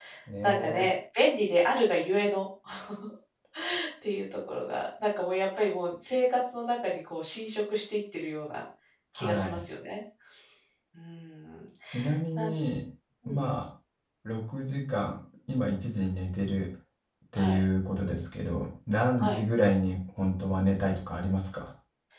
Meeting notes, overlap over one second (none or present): none